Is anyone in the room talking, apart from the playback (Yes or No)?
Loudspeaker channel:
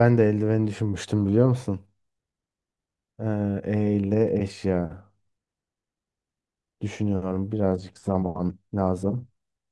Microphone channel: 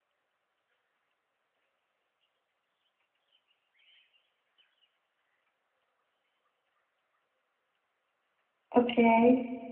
Yes